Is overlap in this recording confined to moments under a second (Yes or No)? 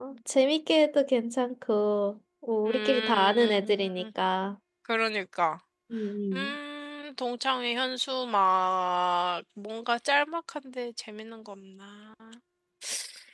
No